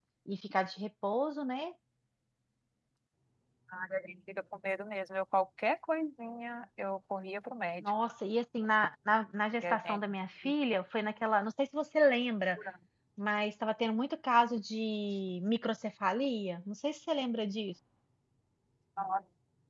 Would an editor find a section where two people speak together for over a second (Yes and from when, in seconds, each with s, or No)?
No